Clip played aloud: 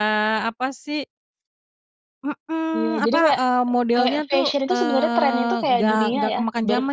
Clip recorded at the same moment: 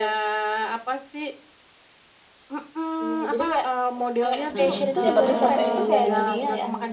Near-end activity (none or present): present